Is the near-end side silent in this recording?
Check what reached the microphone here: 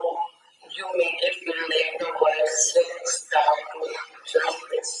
Yes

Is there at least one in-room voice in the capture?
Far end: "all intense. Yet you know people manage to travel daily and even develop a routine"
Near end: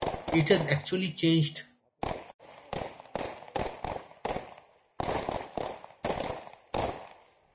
Yes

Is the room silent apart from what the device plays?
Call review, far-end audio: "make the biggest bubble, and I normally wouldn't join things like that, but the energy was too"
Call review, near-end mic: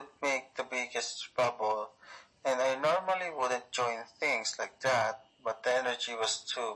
Yes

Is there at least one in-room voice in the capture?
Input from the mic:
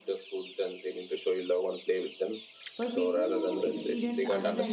Yes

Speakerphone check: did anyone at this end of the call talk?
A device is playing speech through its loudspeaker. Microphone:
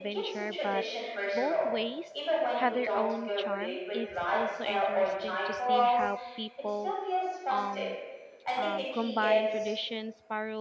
Yes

